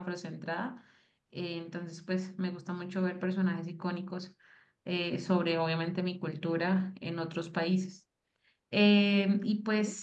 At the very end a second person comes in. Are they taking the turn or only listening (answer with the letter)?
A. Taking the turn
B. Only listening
B